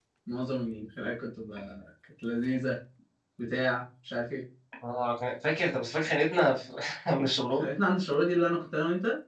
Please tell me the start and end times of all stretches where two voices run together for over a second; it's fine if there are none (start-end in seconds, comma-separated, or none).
none